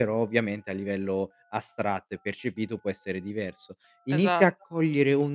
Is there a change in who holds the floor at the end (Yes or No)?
No